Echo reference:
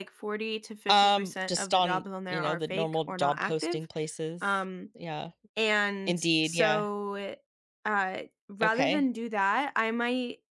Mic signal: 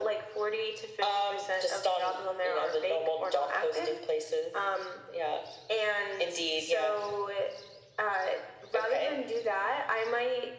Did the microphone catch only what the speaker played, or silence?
Yes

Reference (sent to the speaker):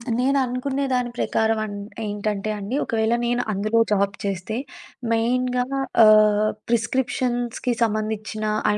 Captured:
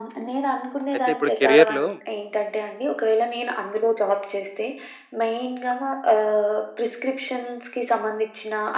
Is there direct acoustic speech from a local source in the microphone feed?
Yes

